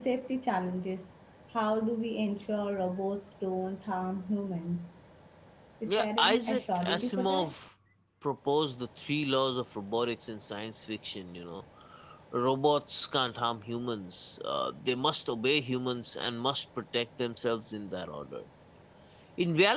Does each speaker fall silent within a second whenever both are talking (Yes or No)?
No